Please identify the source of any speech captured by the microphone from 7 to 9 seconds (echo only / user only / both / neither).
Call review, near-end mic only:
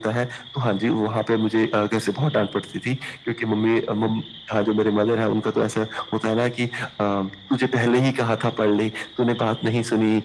echo only